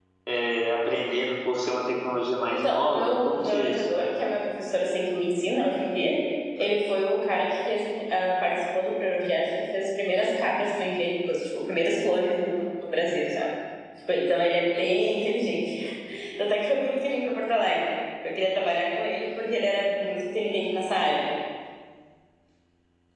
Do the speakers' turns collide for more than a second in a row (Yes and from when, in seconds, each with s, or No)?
Yes, from 2.5 s